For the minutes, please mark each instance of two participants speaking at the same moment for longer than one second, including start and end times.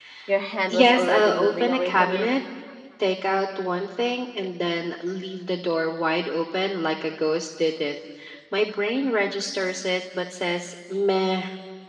0.7-2.3

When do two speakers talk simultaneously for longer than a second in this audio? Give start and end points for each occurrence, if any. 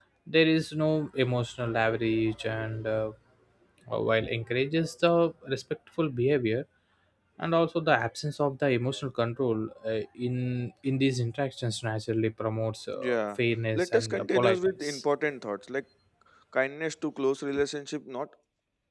13.8-15.0

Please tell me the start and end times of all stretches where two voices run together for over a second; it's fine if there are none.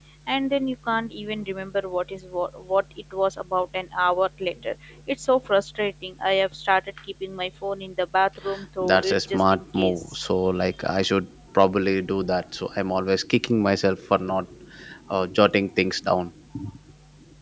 8.8-10.0

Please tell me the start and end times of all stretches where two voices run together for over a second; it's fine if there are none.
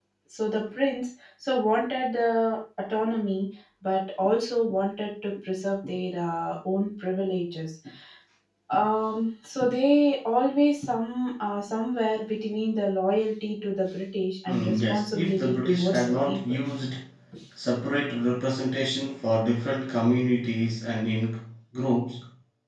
14.5-16.4

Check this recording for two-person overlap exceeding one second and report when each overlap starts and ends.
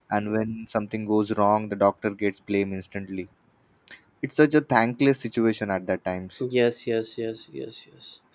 none

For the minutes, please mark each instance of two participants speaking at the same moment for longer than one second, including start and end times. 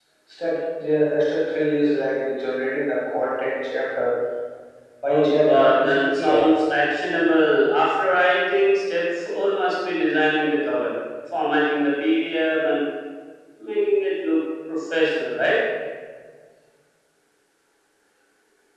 5.1-6.5

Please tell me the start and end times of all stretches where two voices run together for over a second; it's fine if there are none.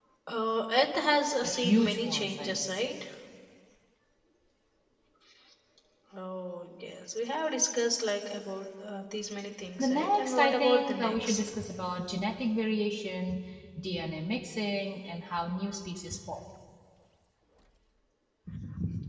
1.4-2.9, 9.8-11.5

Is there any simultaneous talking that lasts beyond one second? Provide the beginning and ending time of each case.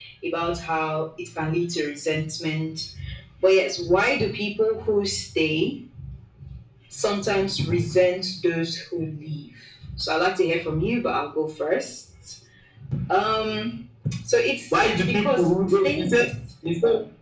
14.7-16.3

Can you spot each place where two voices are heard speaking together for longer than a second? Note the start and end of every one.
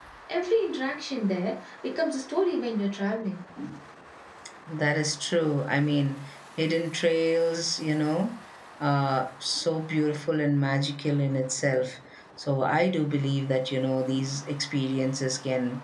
none

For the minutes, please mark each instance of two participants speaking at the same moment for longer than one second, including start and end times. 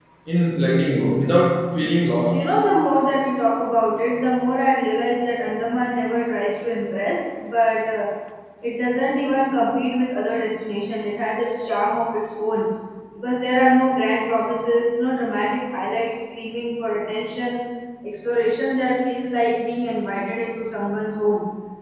none

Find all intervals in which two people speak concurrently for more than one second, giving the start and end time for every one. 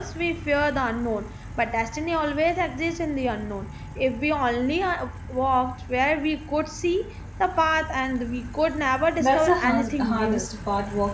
9.2-10.5

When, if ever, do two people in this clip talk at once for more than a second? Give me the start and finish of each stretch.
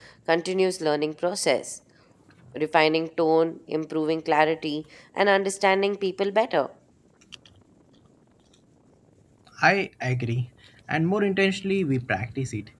none

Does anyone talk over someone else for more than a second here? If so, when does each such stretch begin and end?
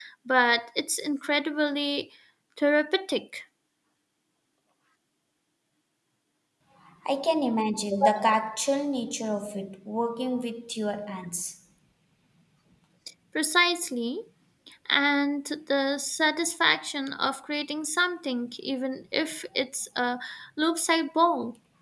none

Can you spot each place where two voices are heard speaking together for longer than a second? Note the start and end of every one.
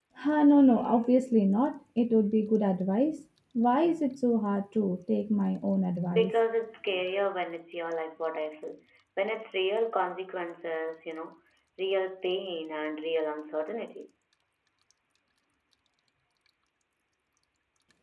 none

